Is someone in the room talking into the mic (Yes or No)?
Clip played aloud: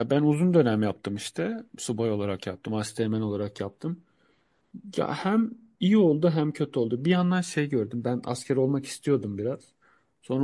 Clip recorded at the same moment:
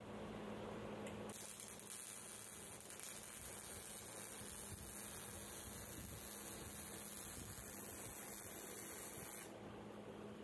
No